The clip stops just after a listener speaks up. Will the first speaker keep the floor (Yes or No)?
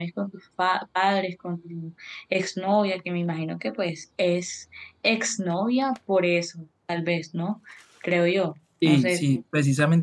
No